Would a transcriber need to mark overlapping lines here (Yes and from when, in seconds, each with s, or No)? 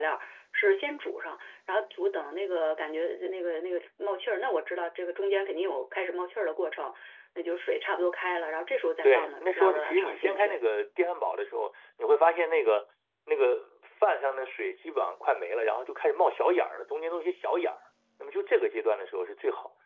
Yes, from 9.0 s